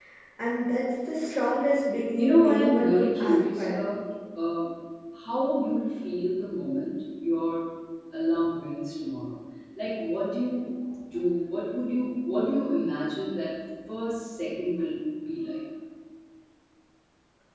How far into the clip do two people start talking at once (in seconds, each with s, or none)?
2.2 s